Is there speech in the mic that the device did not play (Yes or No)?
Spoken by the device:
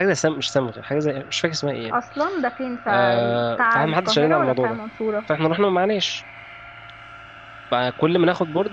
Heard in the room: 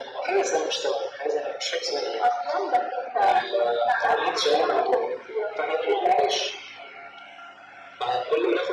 No